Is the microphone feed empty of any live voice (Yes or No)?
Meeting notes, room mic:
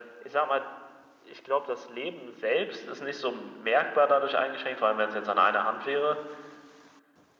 Yes